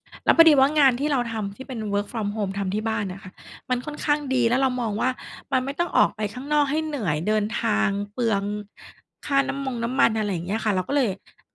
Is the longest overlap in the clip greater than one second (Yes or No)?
No